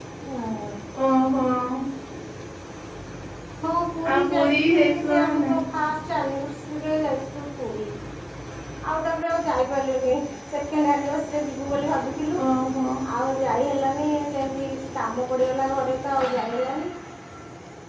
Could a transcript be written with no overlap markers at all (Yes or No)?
No